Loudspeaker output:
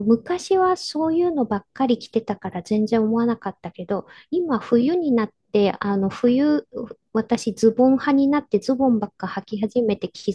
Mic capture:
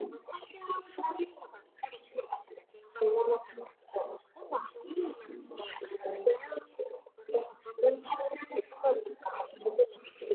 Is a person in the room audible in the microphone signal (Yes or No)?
No